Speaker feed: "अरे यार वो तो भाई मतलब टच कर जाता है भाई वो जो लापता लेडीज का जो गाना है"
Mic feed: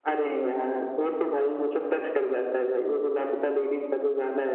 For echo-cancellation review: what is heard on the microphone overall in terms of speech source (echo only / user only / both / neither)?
echo only